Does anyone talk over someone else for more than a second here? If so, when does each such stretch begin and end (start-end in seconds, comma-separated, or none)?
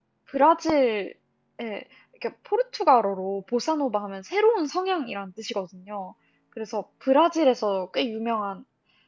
none